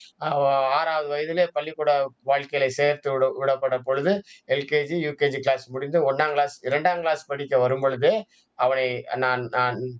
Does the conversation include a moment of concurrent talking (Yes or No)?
No